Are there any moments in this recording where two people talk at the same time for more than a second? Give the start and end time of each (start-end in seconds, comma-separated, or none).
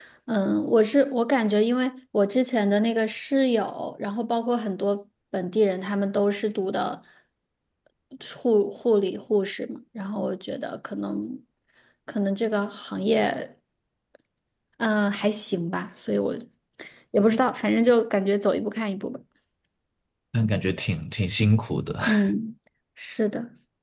none